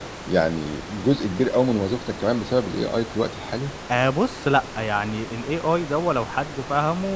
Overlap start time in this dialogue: none

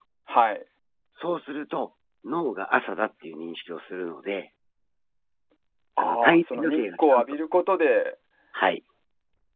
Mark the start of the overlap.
6.0 s

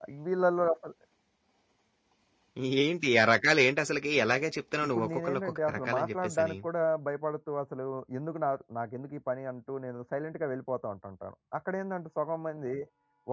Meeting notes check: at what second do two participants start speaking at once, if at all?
4.8 s

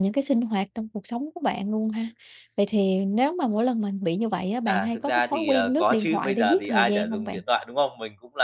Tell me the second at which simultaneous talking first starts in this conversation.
4.7 s

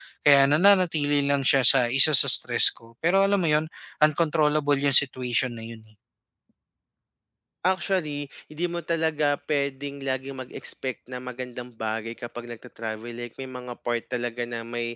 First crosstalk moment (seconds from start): none

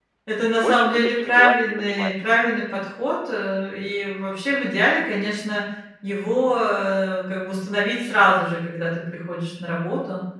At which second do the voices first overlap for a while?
0.6 s

